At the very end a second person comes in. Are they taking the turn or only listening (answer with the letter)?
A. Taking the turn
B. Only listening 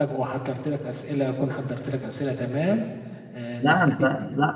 A